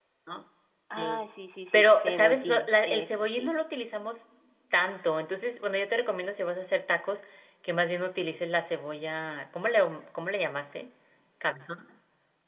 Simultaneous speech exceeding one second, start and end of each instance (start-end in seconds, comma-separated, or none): 1.7-3.5